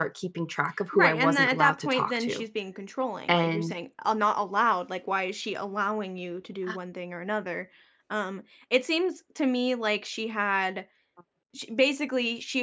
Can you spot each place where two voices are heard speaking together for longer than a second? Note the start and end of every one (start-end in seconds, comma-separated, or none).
0.9-2.4